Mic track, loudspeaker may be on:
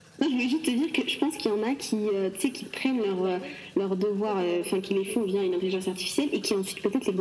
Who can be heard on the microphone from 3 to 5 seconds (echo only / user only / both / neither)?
both